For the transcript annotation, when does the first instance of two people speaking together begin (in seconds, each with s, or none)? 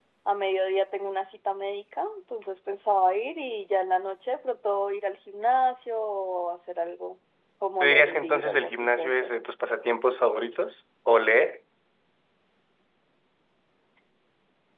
7.8 s